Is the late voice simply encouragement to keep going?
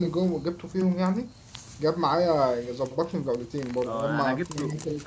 No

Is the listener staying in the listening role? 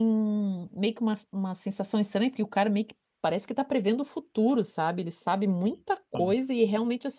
Yes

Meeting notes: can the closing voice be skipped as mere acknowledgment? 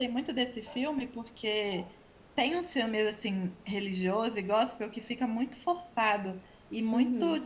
Yes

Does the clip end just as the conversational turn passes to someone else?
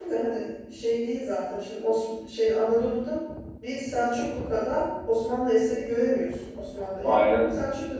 No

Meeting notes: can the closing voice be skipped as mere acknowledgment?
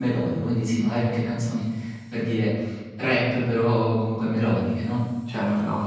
No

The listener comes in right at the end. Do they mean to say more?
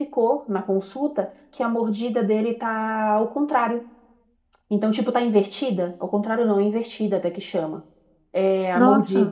No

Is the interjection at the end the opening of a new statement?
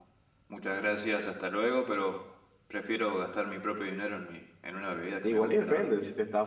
Yes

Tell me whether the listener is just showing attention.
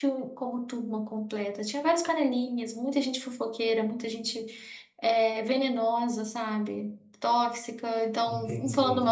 Yes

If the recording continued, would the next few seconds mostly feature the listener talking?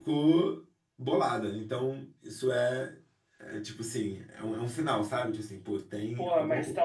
Yes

